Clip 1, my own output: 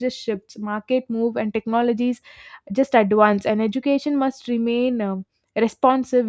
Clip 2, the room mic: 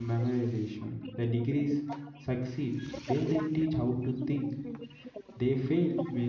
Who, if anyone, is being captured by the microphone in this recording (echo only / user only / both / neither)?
both